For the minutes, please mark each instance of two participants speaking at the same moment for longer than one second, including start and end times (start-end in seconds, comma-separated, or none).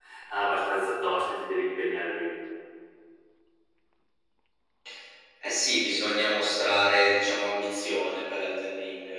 none